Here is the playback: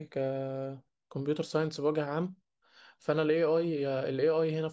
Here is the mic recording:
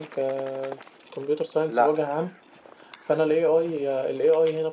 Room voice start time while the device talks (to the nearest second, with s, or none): 2 s